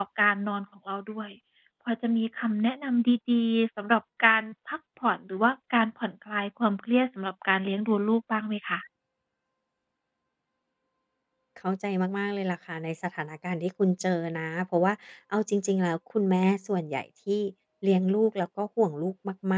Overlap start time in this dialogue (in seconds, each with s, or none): none